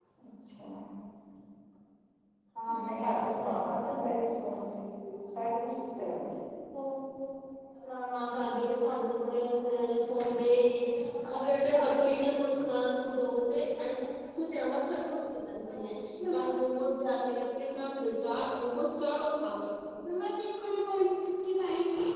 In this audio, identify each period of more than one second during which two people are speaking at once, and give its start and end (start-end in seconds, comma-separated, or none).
2.8-4.1